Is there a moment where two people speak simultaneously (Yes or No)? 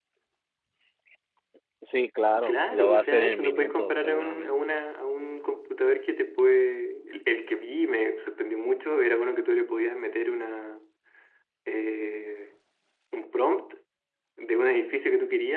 Yes